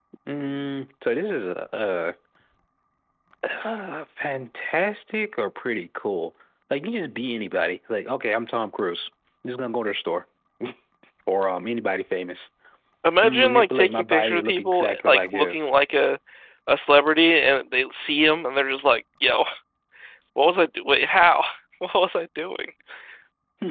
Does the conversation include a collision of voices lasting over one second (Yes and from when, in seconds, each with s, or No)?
Yes, from 13.2 s